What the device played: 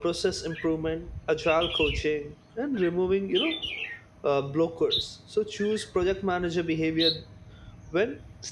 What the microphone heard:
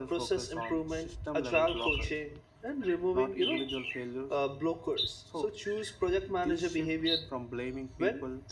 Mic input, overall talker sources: both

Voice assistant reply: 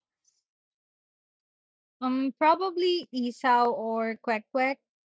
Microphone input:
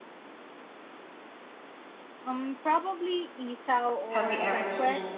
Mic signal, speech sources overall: both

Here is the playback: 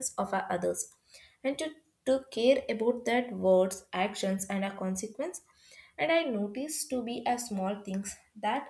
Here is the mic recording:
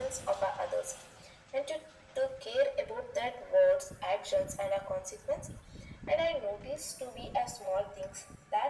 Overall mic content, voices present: echo only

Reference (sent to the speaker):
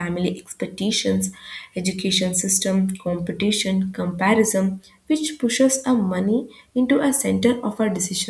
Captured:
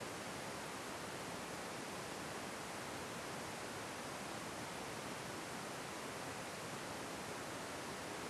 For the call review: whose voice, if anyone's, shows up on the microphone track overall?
neither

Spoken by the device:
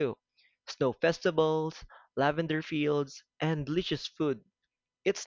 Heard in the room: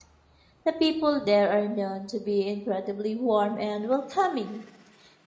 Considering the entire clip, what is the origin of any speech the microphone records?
user only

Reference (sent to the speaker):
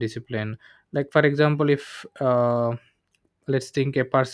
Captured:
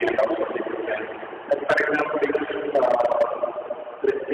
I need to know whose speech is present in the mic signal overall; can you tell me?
echo only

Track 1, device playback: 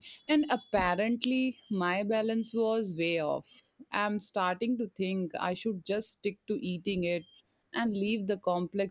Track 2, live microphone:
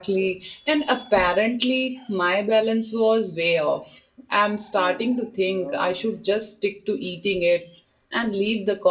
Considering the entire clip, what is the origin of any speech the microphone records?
both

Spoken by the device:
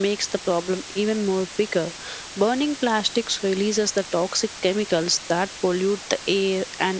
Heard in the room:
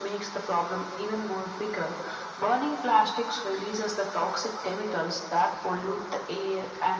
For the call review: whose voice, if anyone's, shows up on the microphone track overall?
echo only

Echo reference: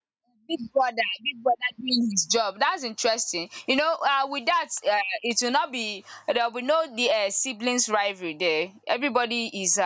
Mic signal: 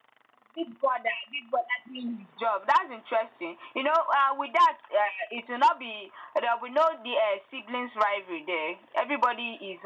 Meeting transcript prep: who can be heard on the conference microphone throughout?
echo only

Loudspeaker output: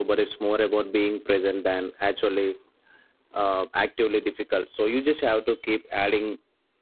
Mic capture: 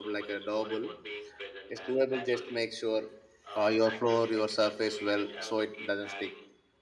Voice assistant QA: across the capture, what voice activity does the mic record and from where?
both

